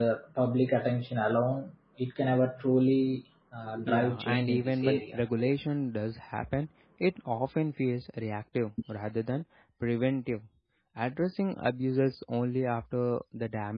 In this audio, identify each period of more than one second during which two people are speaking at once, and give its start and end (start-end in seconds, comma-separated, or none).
3.9-5.2